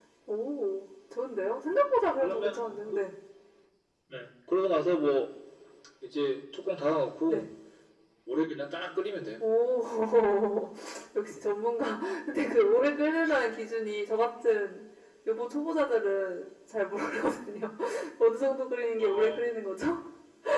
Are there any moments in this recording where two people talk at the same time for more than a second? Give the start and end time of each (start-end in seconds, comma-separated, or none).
none